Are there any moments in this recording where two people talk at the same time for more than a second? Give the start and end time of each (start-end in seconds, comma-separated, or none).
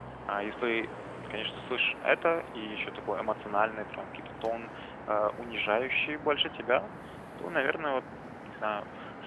none